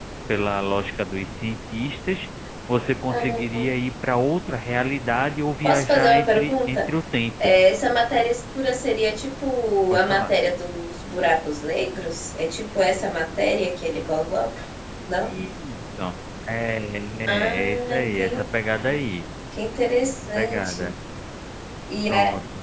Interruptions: present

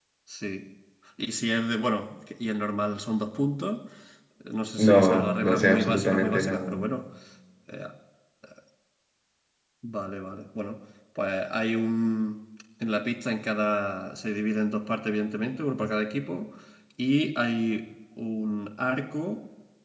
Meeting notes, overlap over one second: present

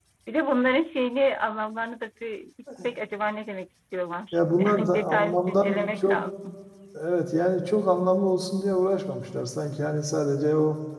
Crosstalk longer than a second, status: present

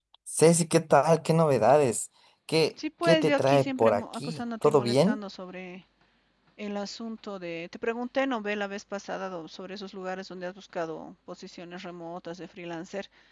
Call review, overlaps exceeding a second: present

